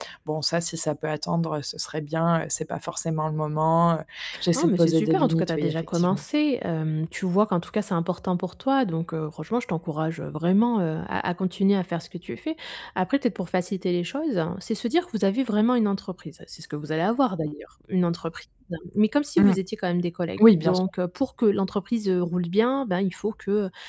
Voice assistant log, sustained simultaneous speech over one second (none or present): present